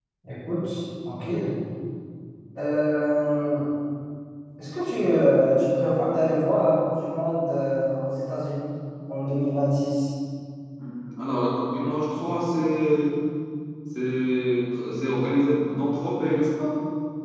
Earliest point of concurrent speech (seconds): none

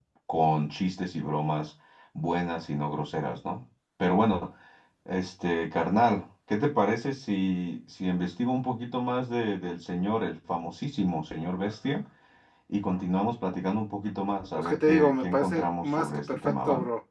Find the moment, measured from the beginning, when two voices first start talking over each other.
14.6 s

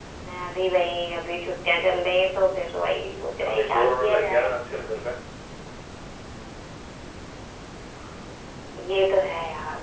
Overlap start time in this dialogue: 2.9 s

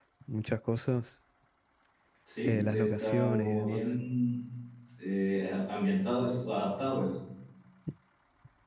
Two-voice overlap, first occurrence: 2.5 s

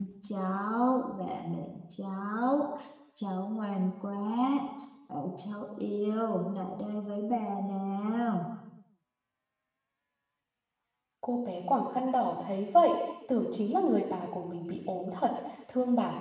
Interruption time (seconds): none

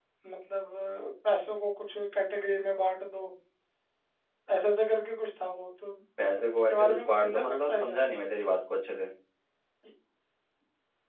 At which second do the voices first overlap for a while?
6.7 s

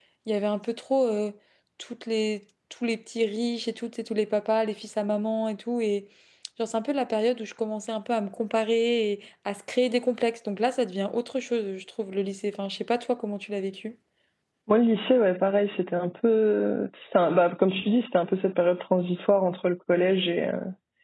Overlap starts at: none

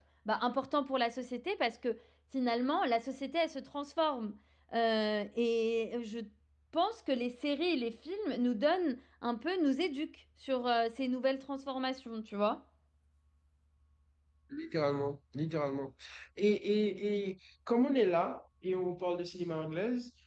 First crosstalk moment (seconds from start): none

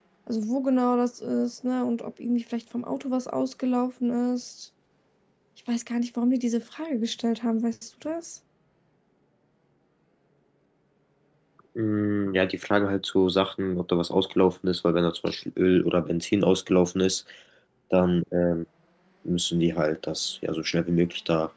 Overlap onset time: none

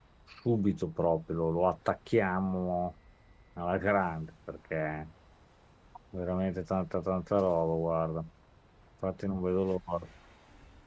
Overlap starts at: none

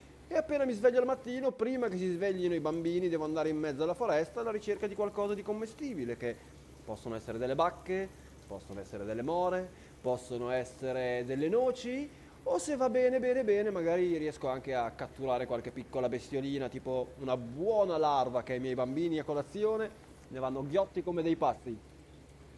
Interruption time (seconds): none

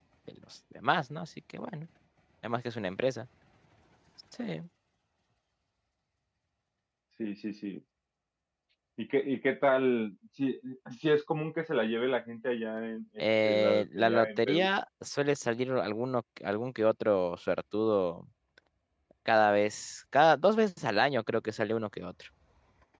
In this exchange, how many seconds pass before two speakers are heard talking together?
13.2 s

